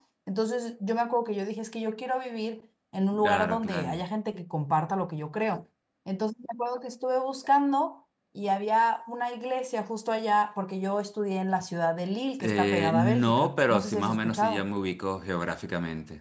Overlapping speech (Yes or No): Yes